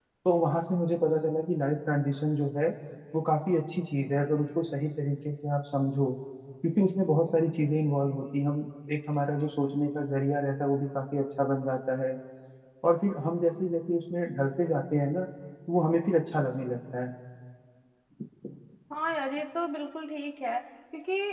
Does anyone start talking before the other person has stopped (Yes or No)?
No